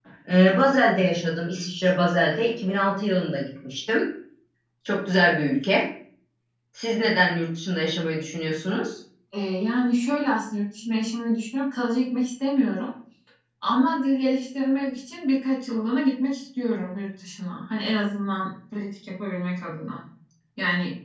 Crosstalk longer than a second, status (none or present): none